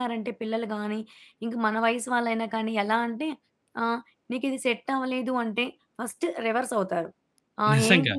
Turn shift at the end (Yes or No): No